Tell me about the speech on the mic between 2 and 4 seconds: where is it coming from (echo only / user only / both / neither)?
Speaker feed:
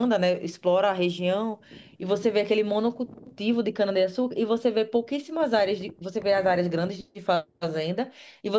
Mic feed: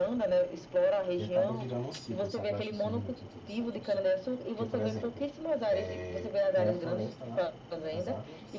both